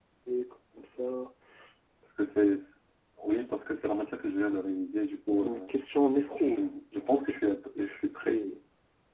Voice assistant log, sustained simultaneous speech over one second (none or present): none